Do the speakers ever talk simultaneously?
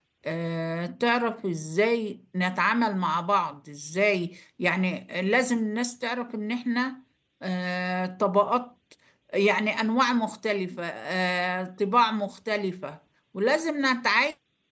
No

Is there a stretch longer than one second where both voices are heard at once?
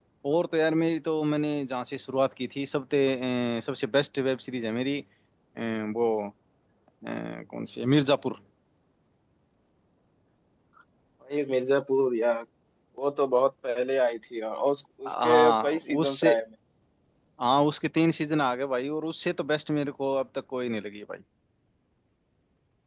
Yes, from 15.1 s

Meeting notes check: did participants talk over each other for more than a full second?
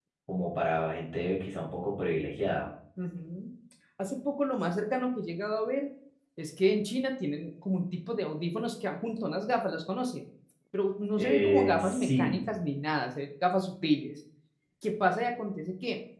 Yes, from 11.2 s

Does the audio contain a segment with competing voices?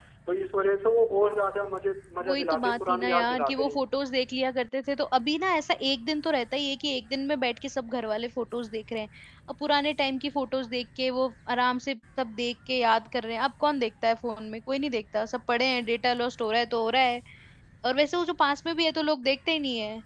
Yes, from 2.2 s

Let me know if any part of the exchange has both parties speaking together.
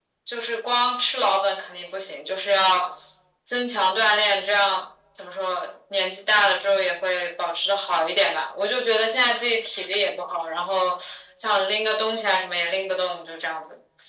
No

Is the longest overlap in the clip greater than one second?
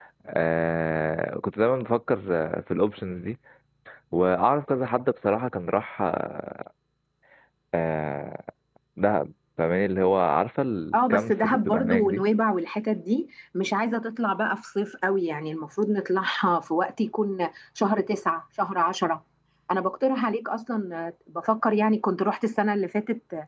Yes, from 10.9 s

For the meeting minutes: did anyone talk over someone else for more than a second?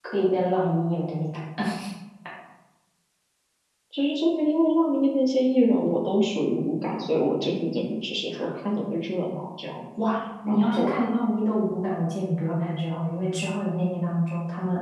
No

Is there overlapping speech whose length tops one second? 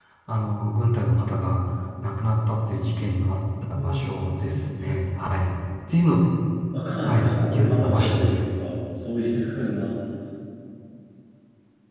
Yes, from 3.8 s

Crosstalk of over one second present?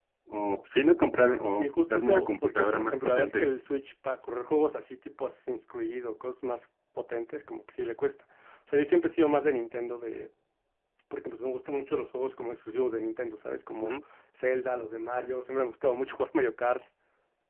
Yes, from 1.6 s

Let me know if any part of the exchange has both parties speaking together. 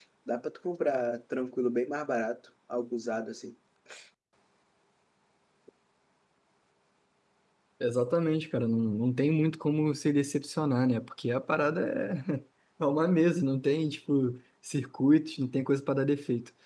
No

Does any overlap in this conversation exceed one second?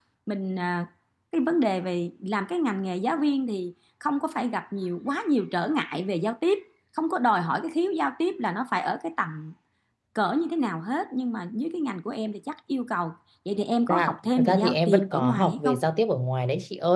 Yes, from 13.9 s

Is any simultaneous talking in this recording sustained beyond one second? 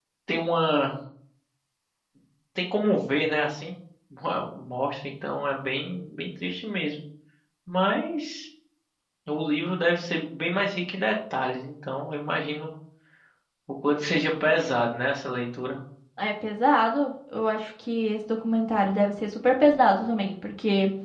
No

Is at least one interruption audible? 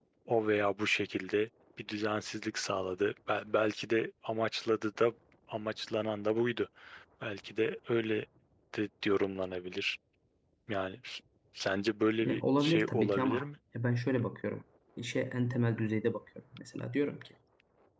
Yes, from 12.2 s

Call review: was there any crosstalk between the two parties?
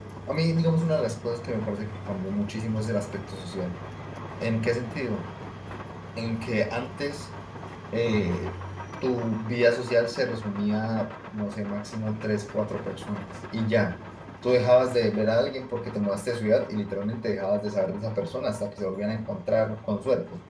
No

